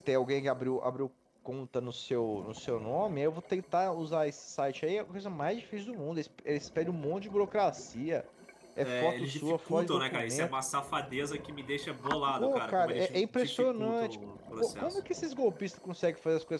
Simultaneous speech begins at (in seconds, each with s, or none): 8.8 s